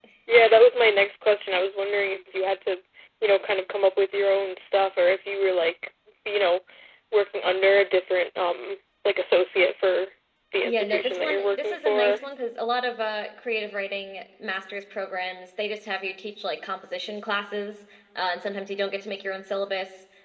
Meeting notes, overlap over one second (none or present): present